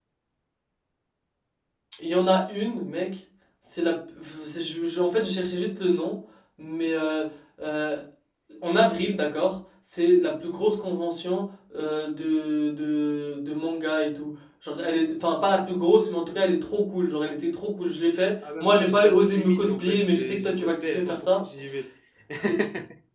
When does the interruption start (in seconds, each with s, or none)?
18.6 s